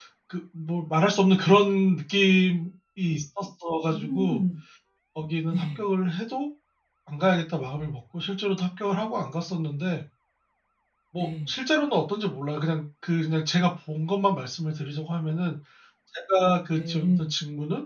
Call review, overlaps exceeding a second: none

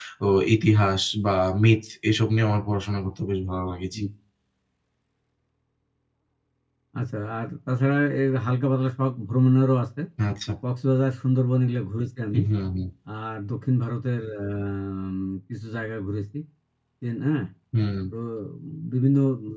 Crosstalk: none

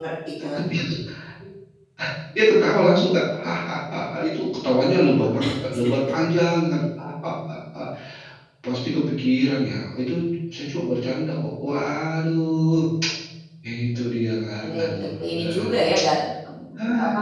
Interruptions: present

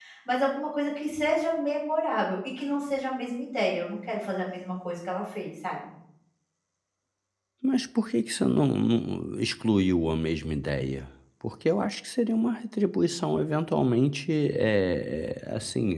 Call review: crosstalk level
none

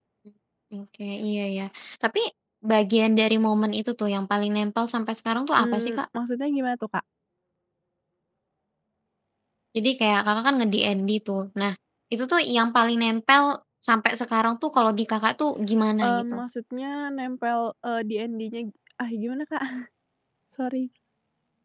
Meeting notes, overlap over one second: none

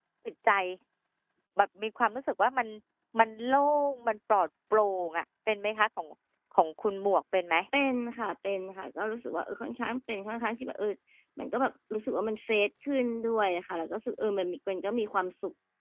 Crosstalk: none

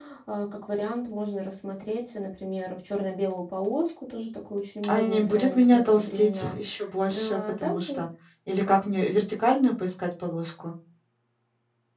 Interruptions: present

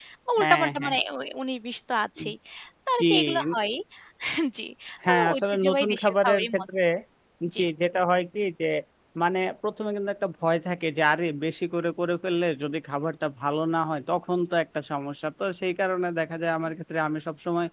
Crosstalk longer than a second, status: present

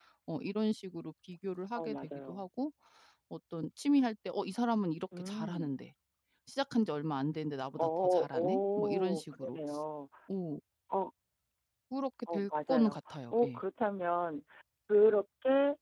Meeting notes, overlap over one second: present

